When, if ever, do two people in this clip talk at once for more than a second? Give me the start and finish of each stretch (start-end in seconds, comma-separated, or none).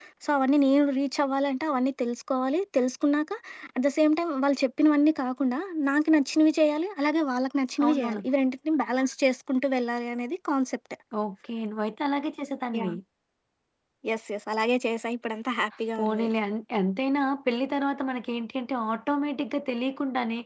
none